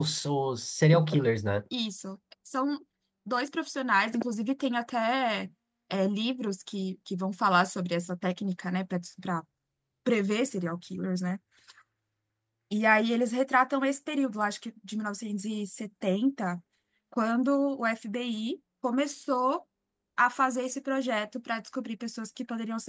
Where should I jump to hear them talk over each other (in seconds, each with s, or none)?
none